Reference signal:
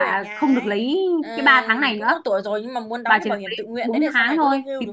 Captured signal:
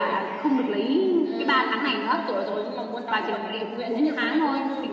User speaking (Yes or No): No